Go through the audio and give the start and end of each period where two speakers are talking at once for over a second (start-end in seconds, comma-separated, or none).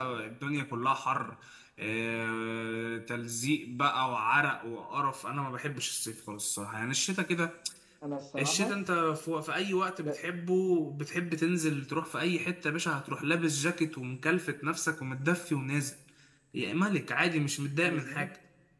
none